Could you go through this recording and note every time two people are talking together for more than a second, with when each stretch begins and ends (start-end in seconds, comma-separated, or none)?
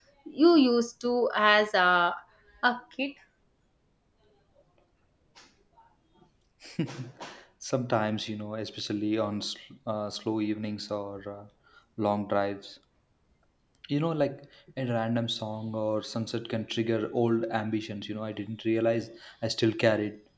none